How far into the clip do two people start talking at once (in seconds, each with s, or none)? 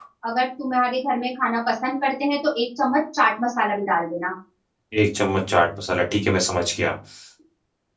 none